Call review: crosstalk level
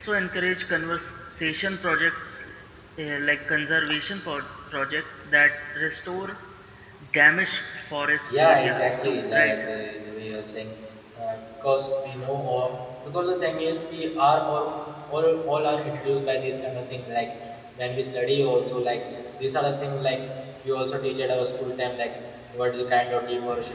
present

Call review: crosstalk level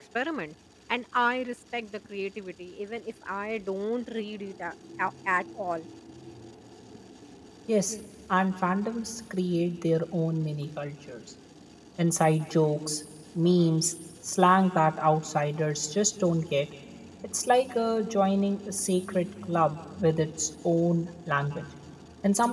none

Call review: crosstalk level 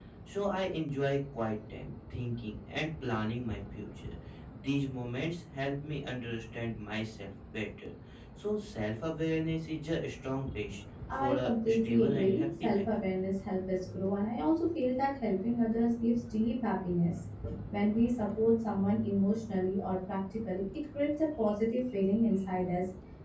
present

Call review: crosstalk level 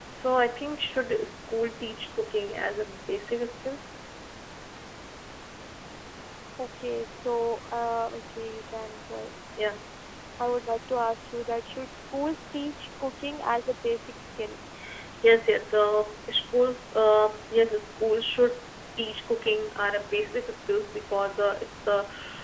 none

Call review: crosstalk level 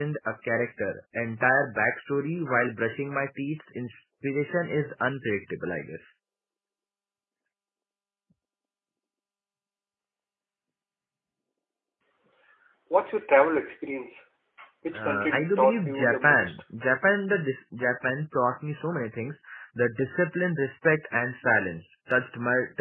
present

